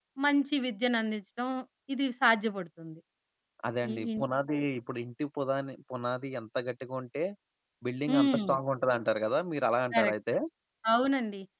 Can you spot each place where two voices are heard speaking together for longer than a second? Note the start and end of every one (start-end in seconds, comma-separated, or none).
none